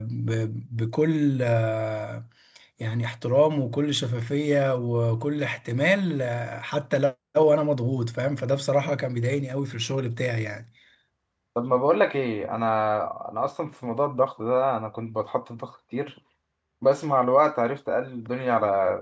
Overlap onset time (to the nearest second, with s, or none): none